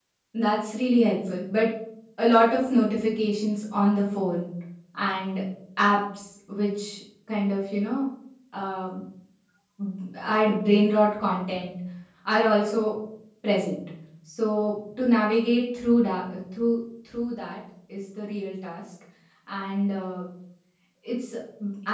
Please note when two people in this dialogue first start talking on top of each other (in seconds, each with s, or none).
none